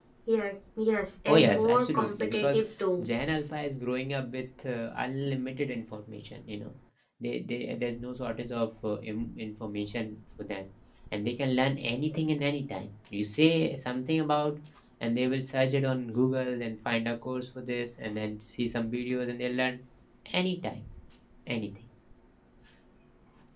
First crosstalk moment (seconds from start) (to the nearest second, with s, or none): 1 s